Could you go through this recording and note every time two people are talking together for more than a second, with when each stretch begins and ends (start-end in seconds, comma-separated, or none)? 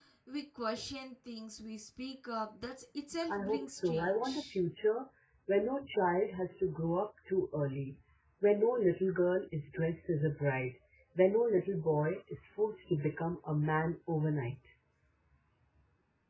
3.3-4.5